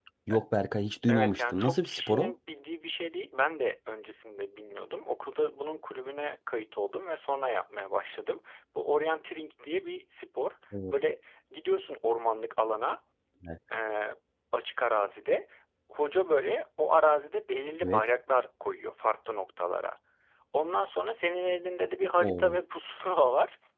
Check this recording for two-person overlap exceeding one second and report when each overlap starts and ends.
1.1-2.3

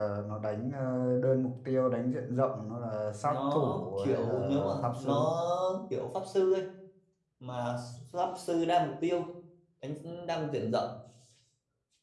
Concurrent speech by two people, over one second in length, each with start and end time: 3.2-5.2

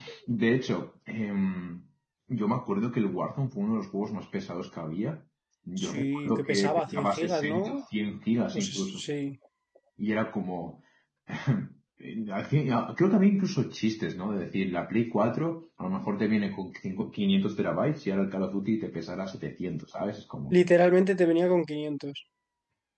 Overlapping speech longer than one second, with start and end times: 5.8-7.8

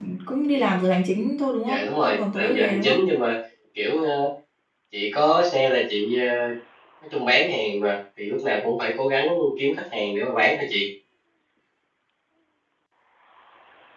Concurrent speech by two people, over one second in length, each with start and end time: 1.6-3.0

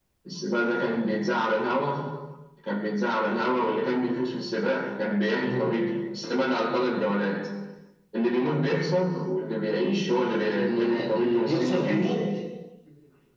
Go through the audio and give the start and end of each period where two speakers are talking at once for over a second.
10.6-12.1

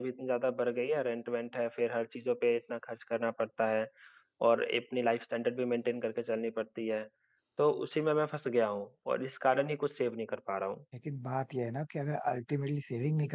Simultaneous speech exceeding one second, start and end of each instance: none

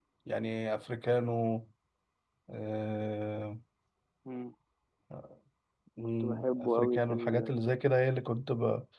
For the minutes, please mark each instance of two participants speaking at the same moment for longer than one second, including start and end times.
6.2-7.5

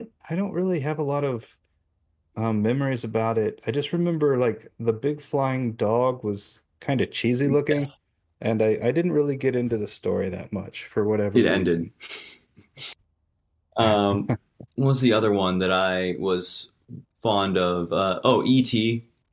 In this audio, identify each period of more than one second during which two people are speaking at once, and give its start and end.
none

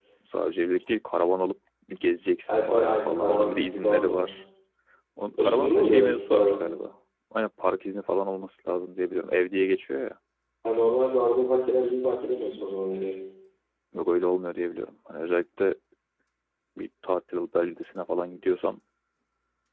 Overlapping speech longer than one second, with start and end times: 2.5-4.3, 5.4-6.7

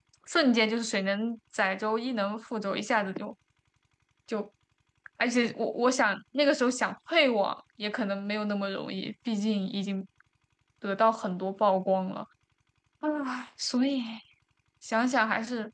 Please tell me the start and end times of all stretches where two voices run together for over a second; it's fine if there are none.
none

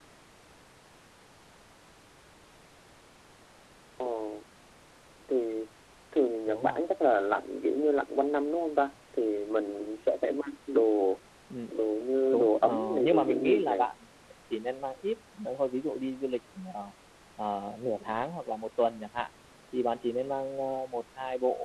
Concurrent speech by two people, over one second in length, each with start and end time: 12.3-13.9

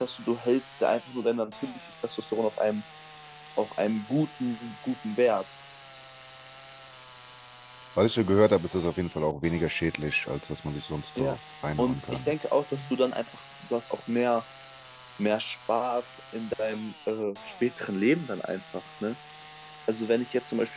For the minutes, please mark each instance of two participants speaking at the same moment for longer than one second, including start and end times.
none

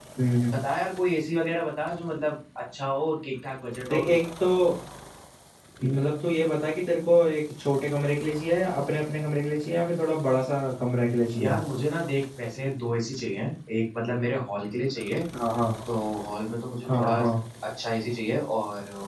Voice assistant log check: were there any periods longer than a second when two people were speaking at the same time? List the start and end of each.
none

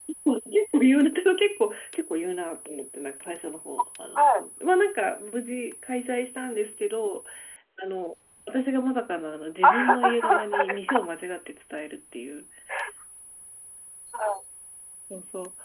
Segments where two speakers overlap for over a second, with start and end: 9.6-11.1

